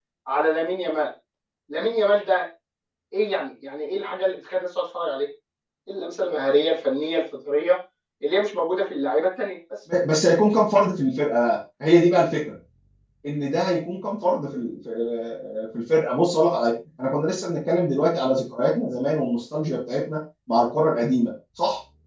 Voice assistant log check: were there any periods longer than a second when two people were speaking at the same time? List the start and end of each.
none

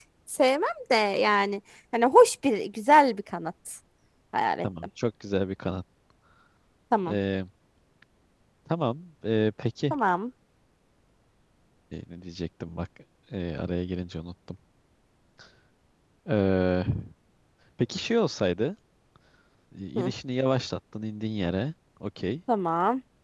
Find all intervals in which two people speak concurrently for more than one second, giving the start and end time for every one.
none

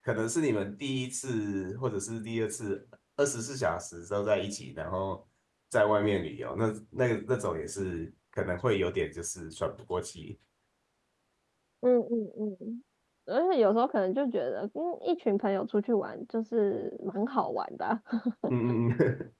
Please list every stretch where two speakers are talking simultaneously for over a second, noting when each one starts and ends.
none

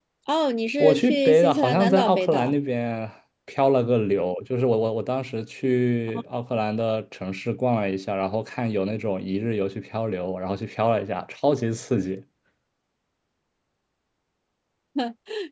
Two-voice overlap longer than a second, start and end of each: 0.8-2.5

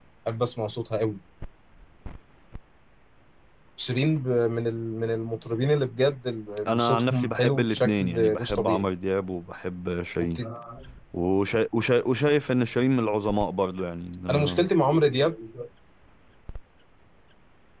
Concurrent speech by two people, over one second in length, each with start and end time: 6.7-8.9

